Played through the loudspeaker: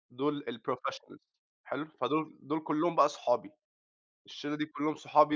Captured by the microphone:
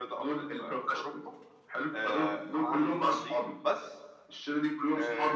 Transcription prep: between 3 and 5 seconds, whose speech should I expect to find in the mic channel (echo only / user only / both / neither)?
both